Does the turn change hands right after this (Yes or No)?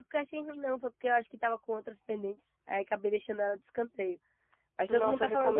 Yes